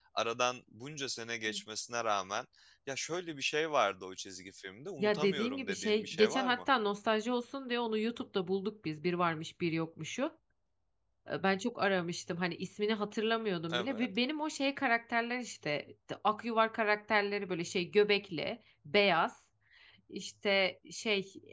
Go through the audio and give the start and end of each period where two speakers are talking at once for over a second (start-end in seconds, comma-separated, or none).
5.0-6.6